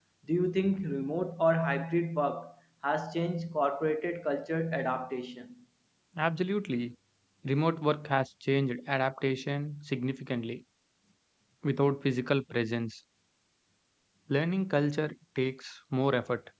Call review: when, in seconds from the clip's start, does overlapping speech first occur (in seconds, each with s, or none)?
none